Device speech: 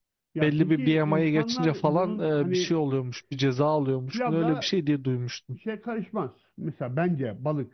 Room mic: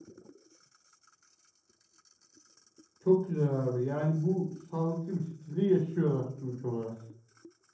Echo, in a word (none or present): none